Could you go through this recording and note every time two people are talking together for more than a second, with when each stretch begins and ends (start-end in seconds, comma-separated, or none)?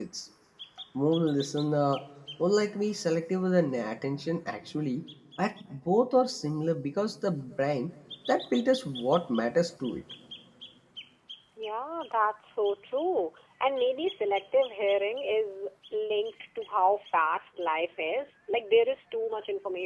none